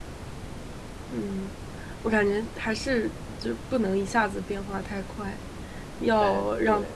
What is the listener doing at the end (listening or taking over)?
listening